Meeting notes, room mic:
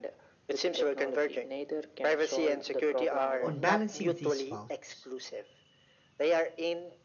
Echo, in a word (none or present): present